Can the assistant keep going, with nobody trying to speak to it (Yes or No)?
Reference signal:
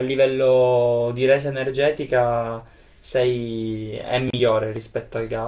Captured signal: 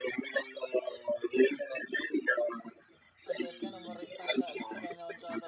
No